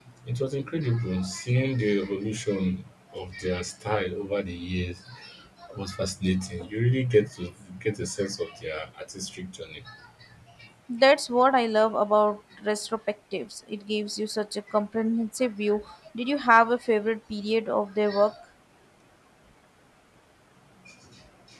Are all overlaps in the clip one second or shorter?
Yes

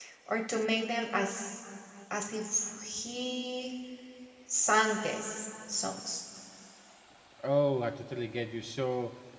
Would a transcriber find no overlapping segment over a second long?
Yes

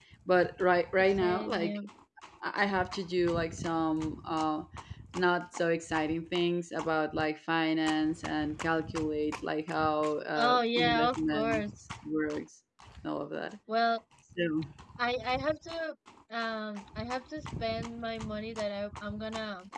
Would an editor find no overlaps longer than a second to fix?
No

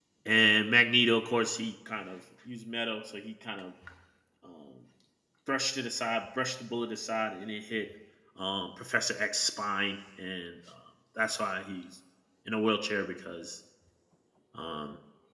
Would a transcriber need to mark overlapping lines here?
No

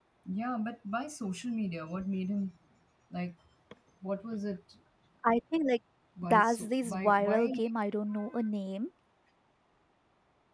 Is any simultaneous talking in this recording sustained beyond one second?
Yes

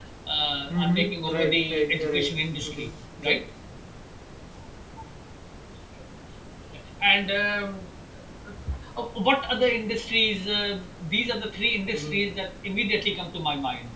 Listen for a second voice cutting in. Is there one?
Yes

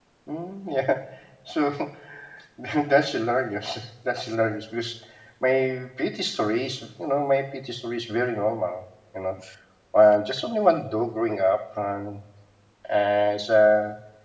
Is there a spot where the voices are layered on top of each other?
No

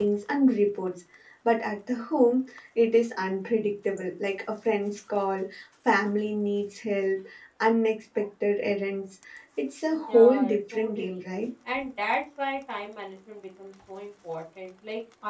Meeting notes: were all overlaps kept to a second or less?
No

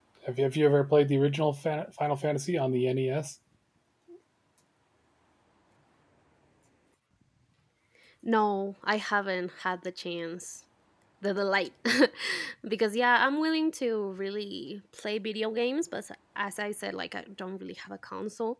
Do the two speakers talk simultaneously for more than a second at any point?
No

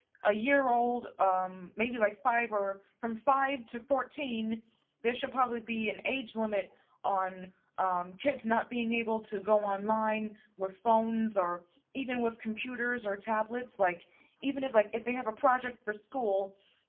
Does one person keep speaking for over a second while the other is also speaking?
No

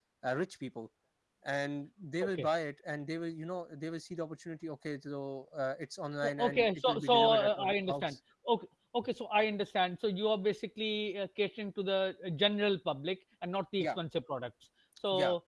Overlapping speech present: Yes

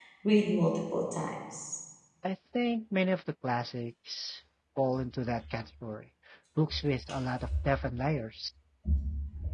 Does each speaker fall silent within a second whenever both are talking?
Yes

